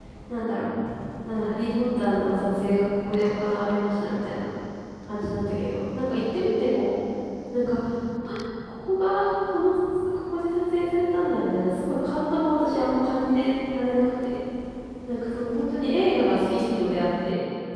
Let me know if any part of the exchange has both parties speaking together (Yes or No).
No